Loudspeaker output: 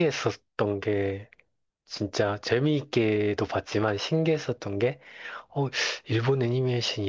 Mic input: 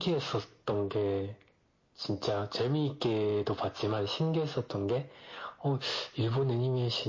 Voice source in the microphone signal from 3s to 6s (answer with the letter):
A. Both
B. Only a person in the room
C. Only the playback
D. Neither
C